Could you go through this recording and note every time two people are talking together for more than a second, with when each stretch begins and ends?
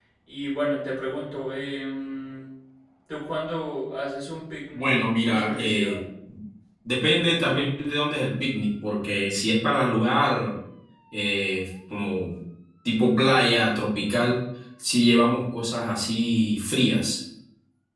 4.7-6.0

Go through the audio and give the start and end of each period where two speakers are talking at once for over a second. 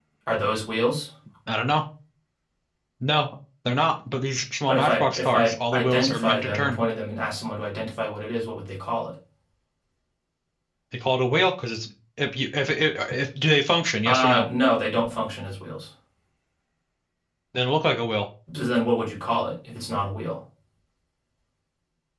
4.7-6.8

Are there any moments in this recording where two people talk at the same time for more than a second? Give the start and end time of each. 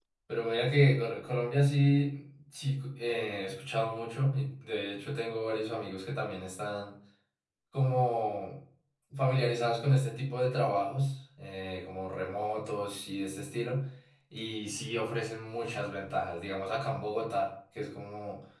none

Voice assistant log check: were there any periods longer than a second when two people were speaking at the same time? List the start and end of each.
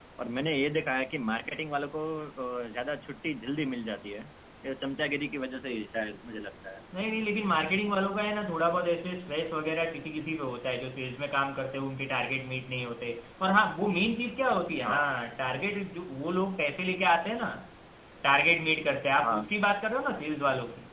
none

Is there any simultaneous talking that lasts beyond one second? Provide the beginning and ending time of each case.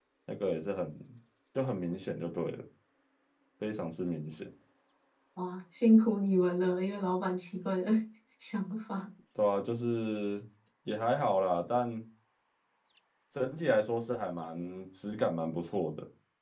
none

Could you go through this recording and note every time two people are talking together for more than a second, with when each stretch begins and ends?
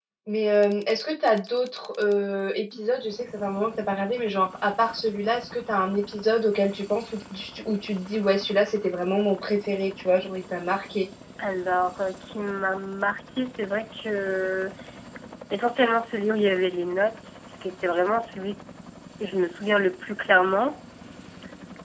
none

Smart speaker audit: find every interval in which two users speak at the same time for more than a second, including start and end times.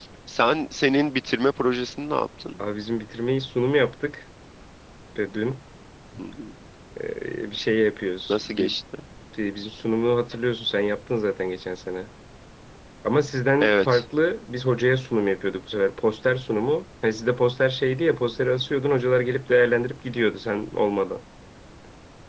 none

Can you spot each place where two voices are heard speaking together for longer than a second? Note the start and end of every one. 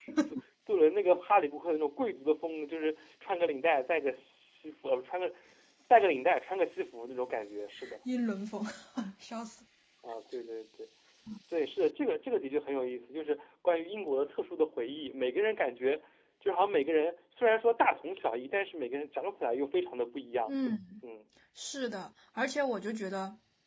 none

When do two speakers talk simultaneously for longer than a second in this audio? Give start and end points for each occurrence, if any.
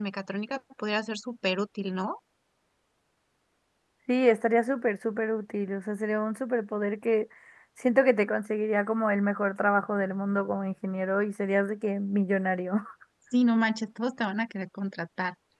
none

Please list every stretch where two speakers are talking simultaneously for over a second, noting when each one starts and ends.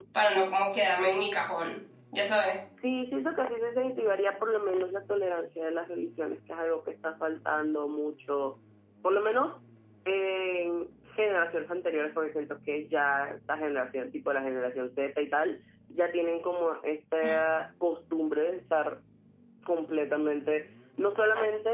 none

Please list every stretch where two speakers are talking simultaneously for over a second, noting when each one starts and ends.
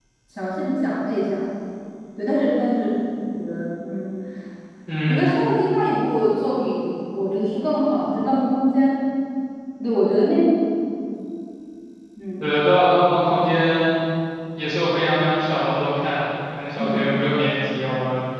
none

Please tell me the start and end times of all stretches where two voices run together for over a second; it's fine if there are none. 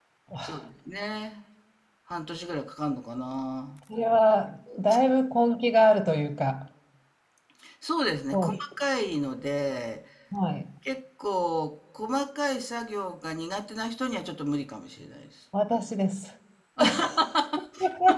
none

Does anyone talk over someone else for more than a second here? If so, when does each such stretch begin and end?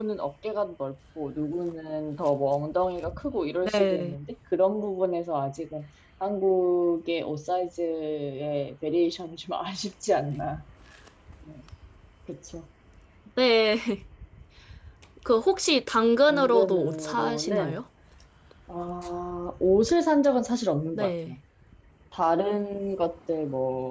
16.3-17.8

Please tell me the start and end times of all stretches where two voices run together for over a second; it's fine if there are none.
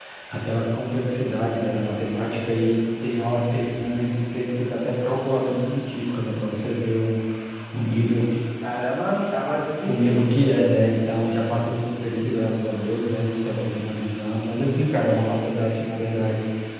none

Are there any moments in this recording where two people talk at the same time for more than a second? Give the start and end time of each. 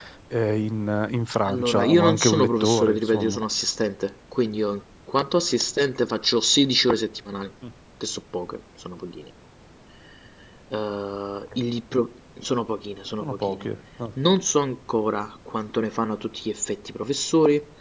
1.4-3.4

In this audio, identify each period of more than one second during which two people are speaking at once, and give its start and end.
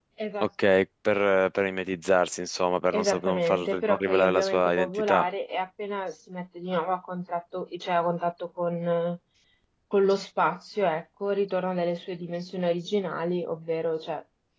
2.9-5.2

